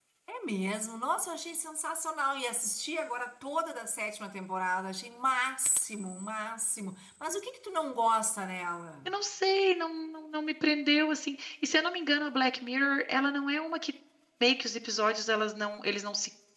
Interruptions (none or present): none